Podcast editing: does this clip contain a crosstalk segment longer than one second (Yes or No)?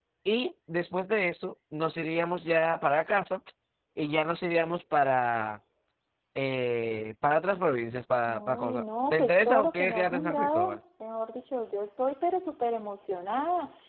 Yes